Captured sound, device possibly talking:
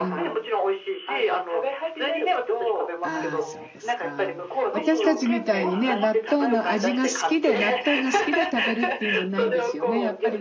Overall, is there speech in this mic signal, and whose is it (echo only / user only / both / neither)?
both